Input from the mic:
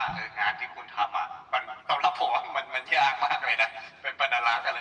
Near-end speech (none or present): none